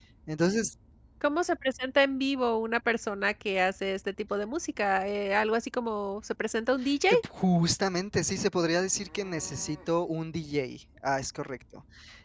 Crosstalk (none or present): none